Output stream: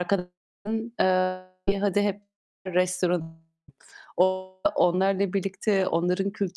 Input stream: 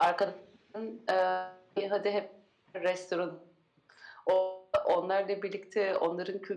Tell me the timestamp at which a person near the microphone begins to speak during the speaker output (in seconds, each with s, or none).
none